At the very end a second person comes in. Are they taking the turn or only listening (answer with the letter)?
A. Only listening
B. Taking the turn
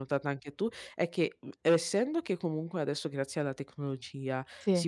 A